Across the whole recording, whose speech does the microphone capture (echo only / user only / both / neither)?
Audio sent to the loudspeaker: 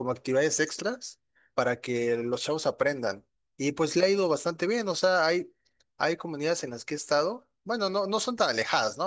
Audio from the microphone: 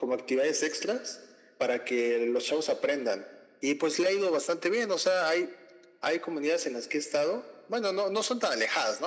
echo only